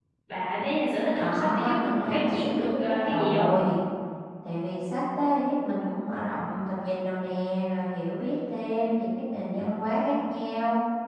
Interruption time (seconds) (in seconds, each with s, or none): 1.2 s